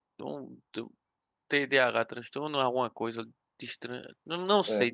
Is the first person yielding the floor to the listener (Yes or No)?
No